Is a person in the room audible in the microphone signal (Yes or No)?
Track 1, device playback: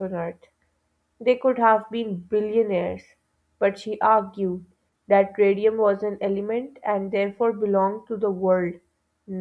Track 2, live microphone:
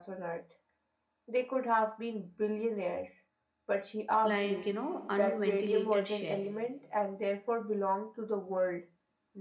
Yes